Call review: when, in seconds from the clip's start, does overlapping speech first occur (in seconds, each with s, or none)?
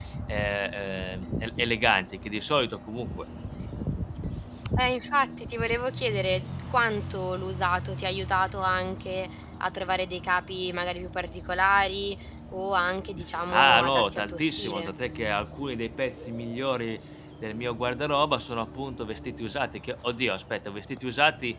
13.5 s